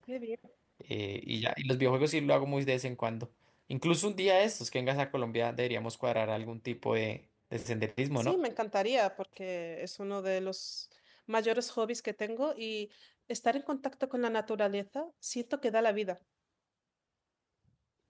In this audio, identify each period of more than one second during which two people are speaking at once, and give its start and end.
none

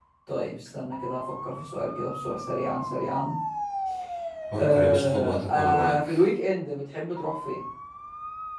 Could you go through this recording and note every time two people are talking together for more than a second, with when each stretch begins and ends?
4.6-6.2

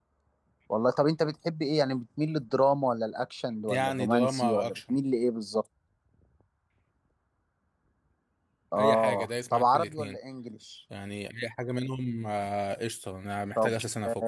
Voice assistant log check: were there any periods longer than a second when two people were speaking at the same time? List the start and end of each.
3.7-5.0, 8.8-10.2

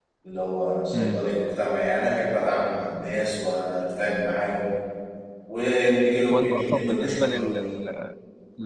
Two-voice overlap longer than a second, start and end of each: 6.3-7.6

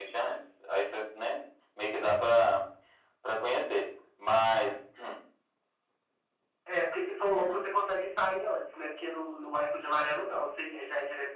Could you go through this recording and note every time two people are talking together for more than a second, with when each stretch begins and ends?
none

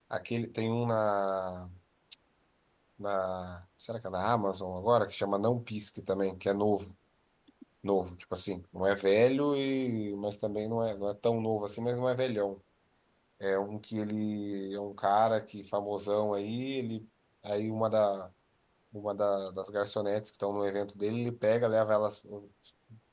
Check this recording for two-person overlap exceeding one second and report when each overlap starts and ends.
none

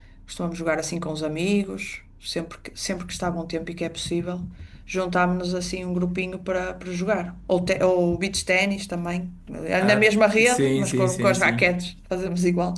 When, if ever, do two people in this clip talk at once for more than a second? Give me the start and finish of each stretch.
9.8-11.7

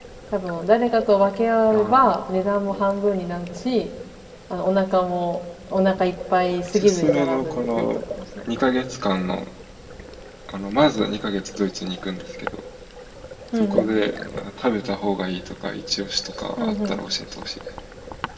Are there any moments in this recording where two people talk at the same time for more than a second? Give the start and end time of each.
6.7-8.0

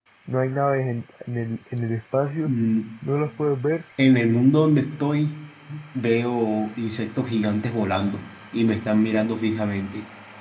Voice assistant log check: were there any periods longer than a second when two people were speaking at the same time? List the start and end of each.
none

